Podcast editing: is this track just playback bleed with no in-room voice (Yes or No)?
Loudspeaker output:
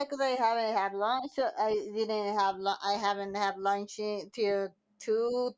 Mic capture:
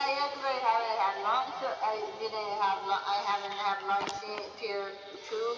Yes